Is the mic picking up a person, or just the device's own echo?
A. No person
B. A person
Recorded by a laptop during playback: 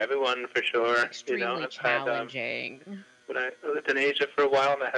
B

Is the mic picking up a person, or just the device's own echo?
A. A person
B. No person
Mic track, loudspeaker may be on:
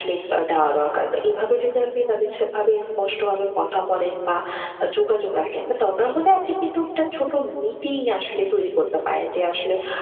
B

